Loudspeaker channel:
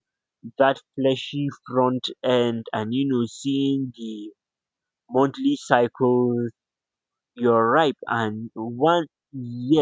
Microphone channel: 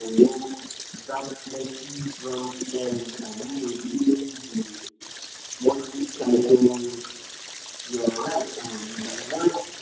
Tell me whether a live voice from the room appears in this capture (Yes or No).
No